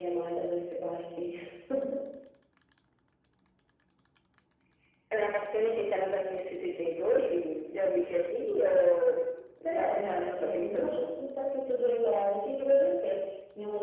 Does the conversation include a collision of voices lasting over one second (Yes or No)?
Yes